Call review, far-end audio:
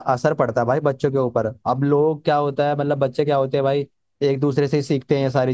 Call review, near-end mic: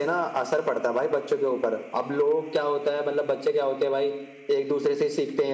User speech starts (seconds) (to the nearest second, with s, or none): none